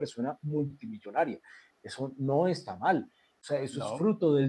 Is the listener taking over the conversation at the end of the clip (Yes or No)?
No